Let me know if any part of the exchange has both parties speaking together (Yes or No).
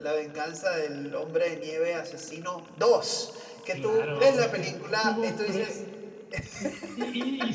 Yes